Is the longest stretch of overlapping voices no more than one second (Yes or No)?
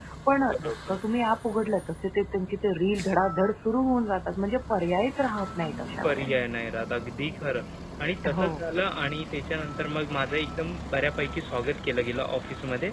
Yes